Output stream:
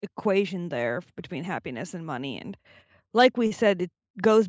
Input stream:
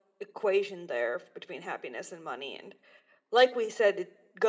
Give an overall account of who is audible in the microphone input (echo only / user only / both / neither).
echo only